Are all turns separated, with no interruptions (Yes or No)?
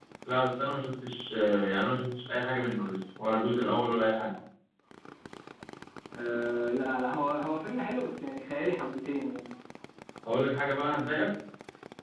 Yes